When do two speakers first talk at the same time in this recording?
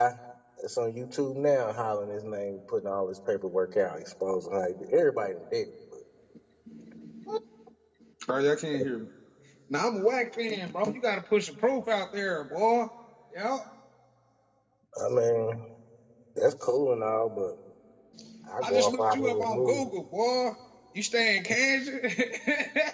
18.6 s

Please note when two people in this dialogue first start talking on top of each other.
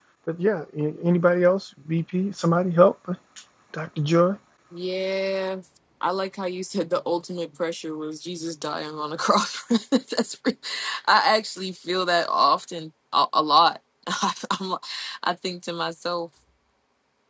none

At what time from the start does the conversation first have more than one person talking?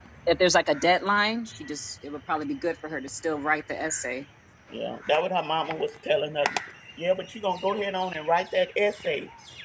none

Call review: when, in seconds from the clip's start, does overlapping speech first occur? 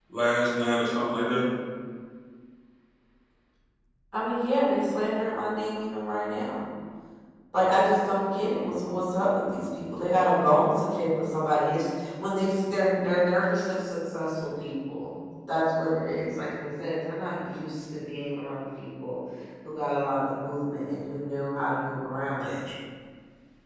none

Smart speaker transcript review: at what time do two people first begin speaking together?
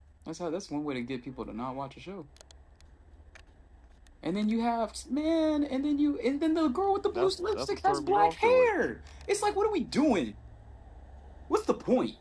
7.0 s

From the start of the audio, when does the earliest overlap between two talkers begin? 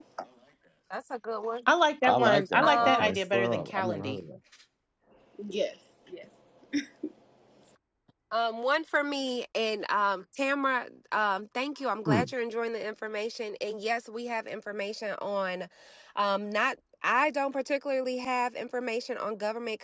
2.1 s

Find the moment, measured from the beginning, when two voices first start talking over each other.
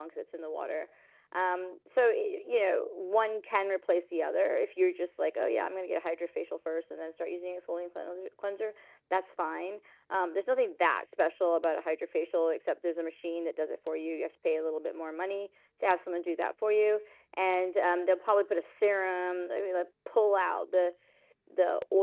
none

